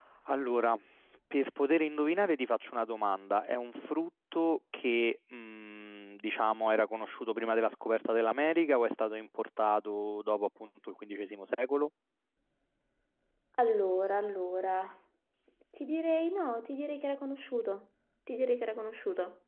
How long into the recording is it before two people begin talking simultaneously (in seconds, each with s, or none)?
none